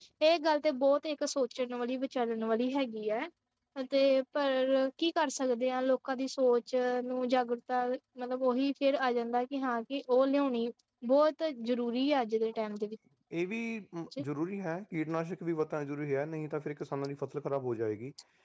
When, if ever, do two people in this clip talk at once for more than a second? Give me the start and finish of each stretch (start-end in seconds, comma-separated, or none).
none